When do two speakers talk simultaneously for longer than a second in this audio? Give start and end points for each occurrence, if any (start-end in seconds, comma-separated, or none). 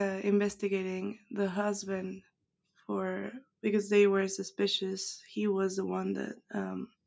none